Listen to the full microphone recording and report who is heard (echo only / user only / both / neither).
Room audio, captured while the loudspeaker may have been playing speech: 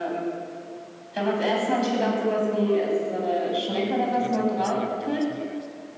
both